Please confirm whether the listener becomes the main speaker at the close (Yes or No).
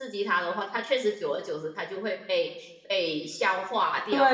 Yes